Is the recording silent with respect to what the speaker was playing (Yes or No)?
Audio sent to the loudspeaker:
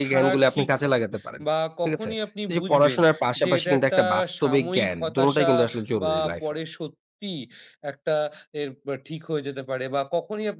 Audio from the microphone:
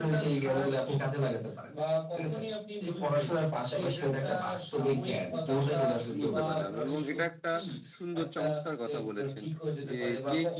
No